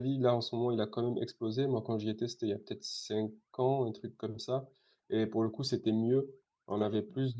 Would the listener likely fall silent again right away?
Yes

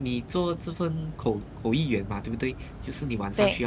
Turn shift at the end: No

